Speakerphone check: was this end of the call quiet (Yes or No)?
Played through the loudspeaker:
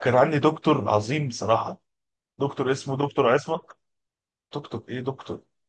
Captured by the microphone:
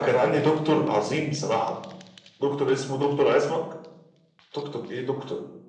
Yes